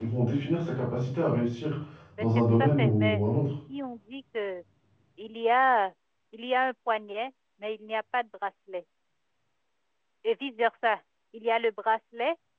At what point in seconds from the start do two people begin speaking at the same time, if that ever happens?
2.2 s

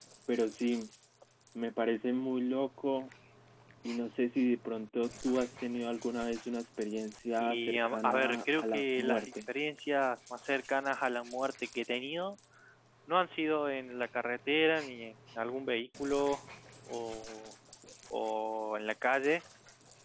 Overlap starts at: 7.4 s

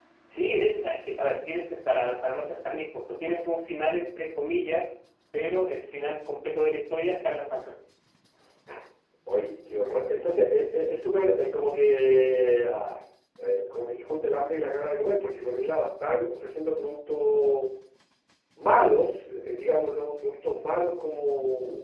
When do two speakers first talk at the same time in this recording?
none

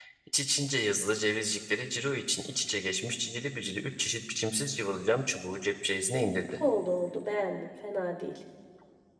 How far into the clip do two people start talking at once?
none

